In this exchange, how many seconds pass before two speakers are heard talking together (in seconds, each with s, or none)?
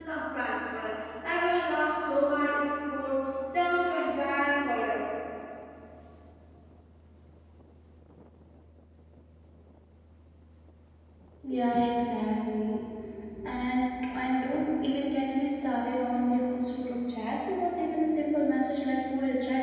none